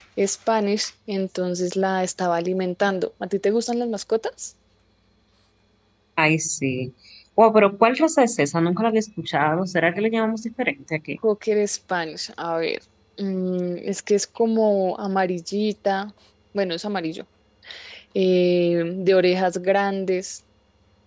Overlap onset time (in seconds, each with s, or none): none